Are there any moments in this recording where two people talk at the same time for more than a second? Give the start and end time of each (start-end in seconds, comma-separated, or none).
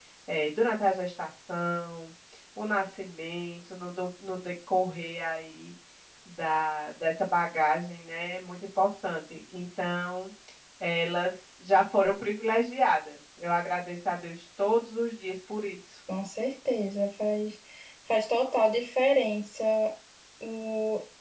none